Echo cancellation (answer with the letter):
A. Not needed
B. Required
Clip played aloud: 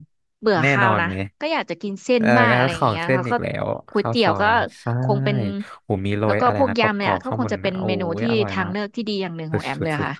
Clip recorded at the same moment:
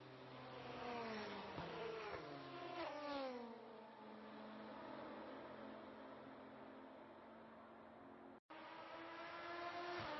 A